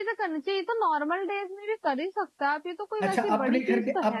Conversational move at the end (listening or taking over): taking over